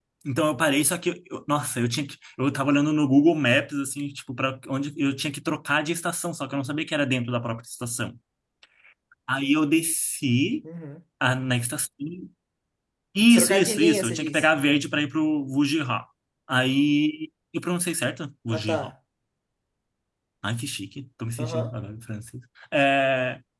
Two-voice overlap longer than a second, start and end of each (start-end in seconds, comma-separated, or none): 13.3-14.5